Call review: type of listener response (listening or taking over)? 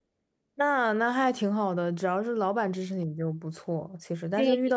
listening